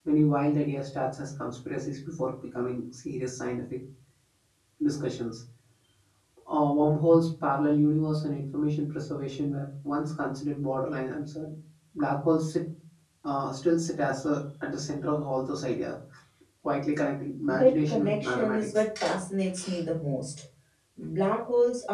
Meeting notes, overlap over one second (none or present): present